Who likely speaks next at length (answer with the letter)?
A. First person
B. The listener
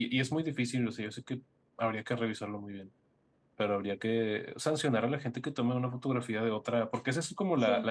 A